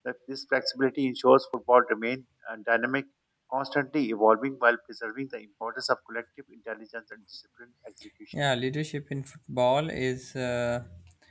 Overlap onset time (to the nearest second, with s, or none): none